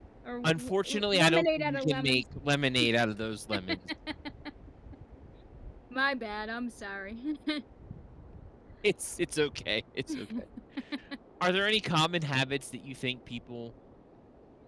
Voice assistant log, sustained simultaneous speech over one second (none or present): present